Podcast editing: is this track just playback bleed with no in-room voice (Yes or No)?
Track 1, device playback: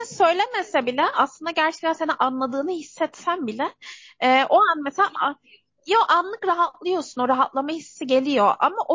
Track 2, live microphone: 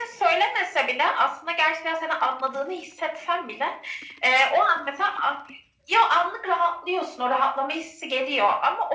Yes